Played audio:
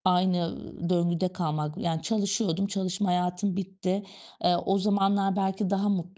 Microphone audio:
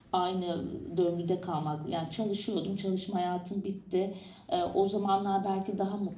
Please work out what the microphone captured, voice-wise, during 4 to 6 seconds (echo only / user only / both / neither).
echo only